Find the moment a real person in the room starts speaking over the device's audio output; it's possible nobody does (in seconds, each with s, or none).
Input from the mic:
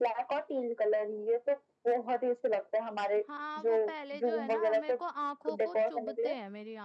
3.2 s